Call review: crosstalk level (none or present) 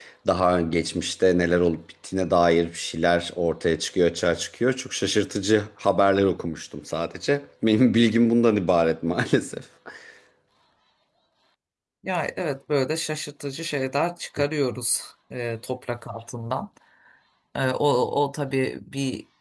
none